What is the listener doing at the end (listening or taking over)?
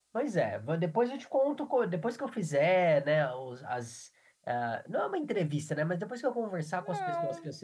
listening